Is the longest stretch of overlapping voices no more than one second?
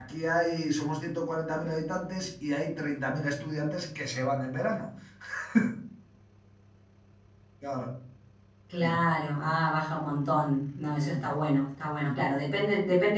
Yes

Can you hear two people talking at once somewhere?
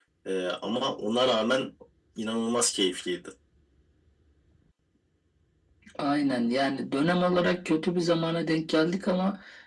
No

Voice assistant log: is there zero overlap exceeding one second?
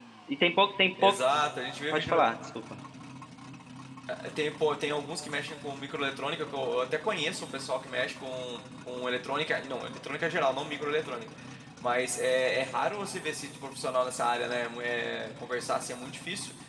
Yes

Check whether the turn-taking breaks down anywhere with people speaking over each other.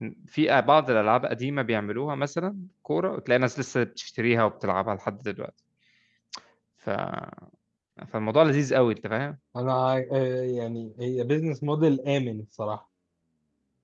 No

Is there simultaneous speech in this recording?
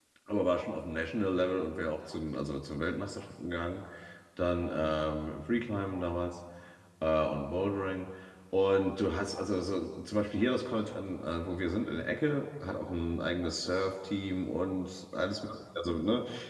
No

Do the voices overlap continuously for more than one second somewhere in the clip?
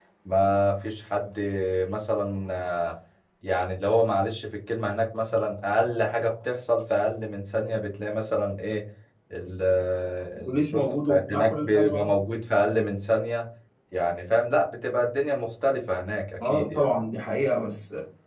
Yes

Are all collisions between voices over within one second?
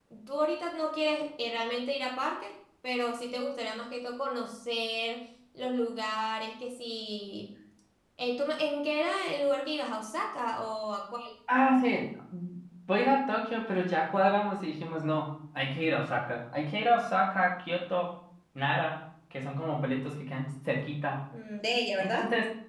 Yes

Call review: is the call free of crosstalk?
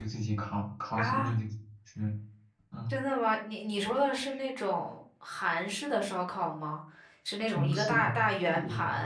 No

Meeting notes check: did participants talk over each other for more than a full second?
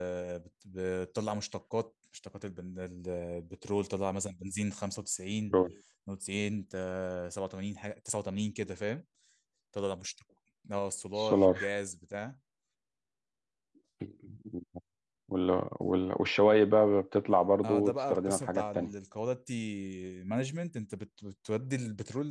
Yes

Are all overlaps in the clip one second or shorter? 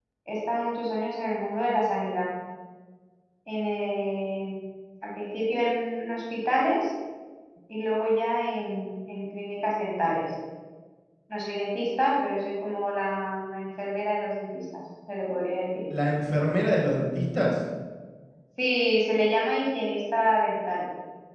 Yes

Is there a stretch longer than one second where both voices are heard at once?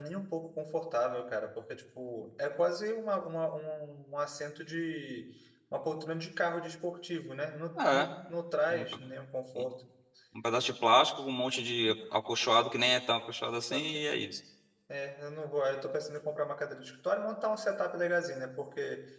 No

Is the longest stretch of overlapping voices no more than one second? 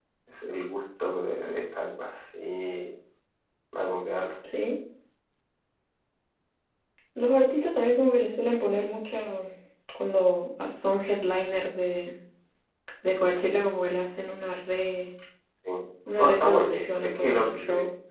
No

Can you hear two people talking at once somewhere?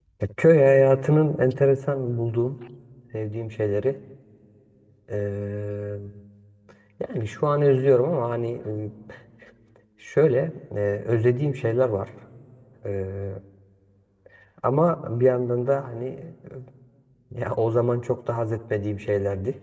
No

